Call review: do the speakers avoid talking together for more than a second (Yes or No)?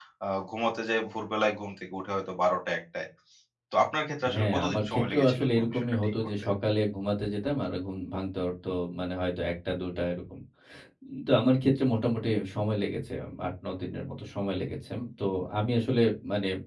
No